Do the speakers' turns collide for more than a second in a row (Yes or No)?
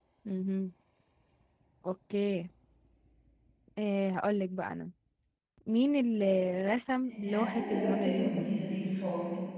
Yes